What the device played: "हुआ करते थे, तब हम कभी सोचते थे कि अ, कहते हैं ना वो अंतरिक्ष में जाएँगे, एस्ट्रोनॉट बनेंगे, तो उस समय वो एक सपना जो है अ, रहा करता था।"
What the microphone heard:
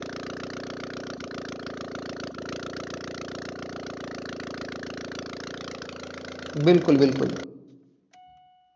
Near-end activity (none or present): present